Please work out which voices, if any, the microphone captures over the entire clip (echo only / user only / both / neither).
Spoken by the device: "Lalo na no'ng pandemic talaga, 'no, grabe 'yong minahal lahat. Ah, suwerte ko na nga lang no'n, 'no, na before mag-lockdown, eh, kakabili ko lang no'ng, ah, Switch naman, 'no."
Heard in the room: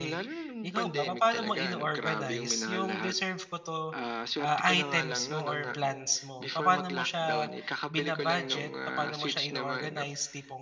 both